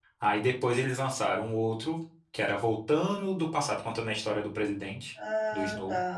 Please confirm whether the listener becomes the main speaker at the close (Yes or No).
Yes